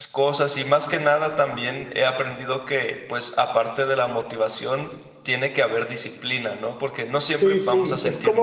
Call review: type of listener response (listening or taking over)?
taking over